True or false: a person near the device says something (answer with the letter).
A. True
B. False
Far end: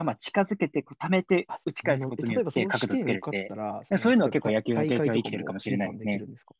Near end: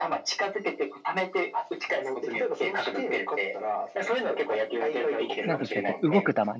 A